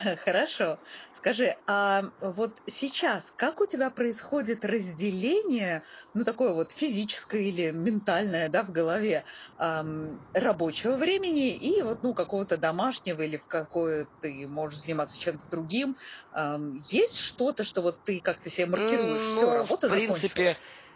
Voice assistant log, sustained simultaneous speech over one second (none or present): present